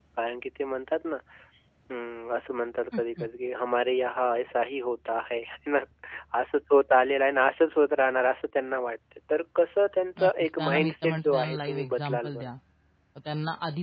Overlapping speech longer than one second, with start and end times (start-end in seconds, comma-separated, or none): 10.2-12.5